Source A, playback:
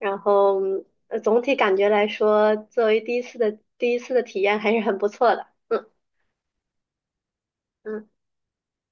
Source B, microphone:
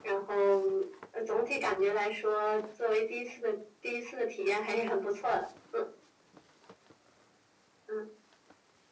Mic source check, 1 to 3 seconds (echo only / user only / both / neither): echo only